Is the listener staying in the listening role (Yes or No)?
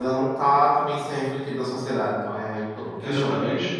No